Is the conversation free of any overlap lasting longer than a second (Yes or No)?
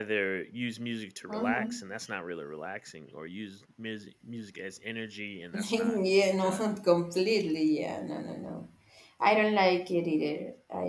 No